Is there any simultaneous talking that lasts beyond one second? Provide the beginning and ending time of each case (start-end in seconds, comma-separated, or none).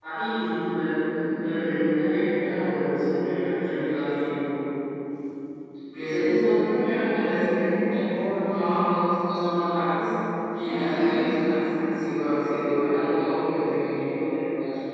none